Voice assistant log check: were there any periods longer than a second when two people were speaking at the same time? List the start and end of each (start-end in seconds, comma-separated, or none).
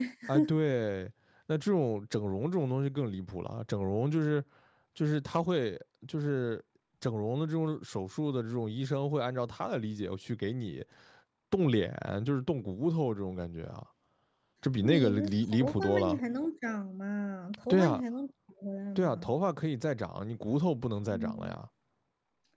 14.8-16.2